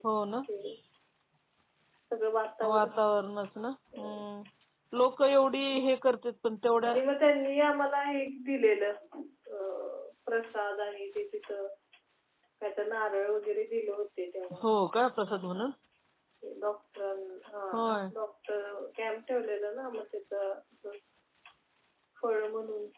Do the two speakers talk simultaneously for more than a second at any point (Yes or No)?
No